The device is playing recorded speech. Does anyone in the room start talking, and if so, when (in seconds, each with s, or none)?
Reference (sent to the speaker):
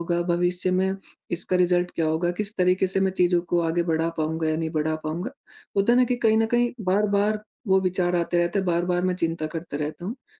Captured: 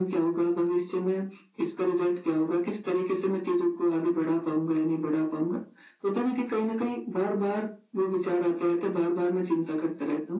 none